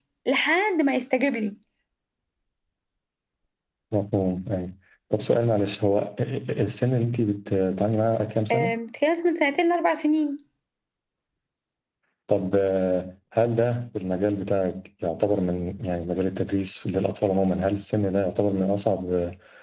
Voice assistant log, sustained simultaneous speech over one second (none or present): none